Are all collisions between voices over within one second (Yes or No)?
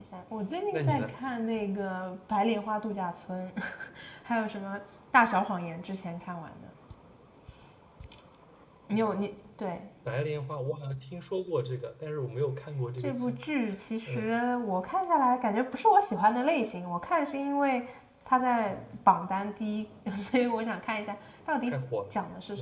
Yes